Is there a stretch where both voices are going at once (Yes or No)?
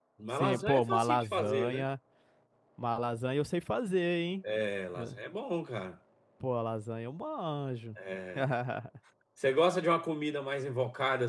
Yes